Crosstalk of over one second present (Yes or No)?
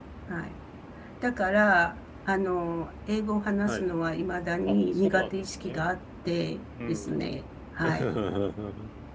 Yes